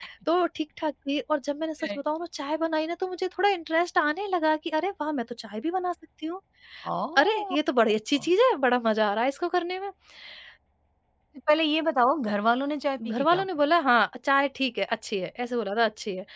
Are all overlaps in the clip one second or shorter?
Yes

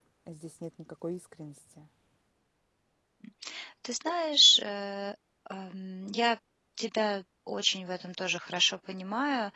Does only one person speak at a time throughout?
Yes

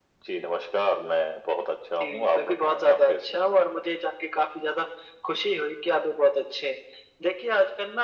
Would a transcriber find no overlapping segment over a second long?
No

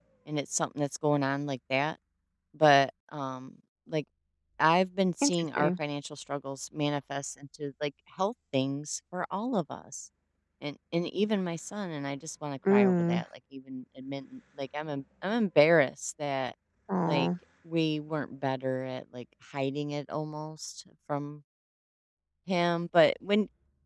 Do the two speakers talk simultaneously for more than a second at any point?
No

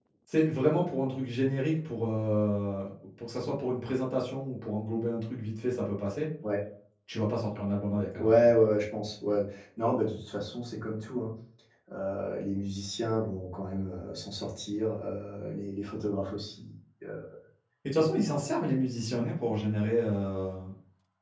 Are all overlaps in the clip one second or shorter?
Yes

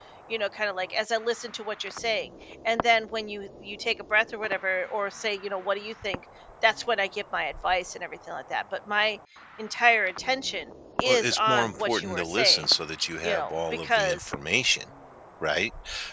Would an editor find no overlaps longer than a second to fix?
No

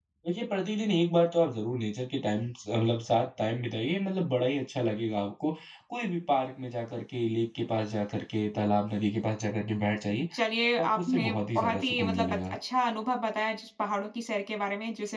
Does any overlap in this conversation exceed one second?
Yes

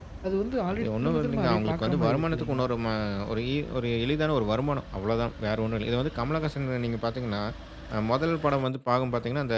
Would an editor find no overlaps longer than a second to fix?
No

